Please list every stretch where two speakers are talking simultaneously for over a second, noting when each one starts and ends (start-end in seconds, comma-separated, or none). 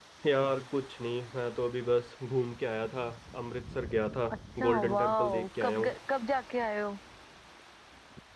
4.6-5.9